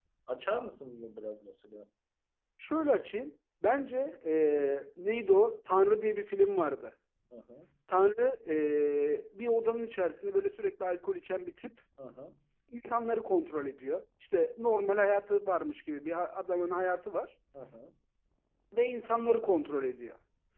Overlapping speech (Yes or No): No